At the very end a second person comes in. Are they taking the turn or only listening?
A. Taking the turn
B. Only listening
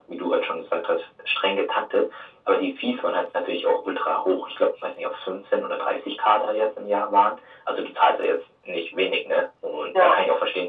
B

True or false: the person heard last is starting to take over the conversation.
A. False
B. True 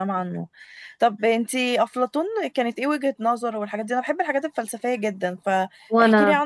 A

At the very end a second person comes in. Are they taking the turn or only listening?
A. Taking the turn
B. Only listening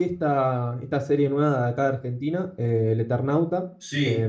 B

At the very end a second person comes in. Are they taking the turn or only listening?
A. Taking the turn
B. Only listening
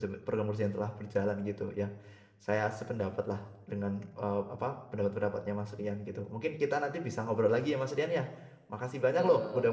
B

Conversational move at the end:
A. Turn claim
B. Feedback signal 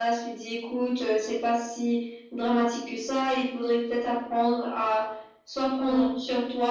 B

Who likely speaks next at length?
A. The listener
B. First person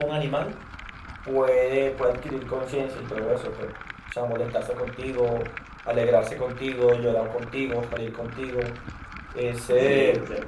A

